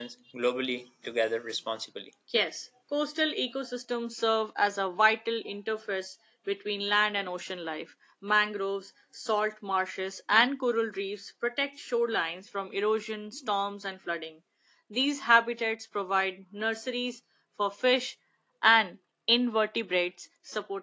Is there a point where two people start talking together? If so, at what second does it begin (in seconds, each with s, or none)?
none